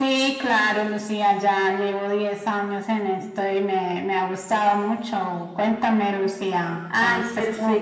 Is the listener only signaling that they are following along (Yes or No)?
No